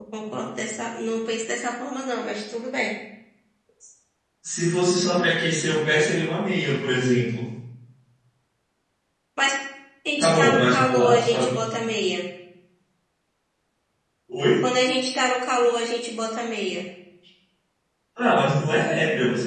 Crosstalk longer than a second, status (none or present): present